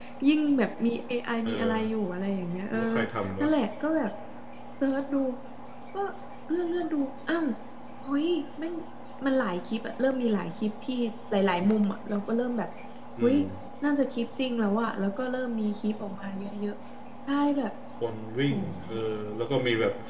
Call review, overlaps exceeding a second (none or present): none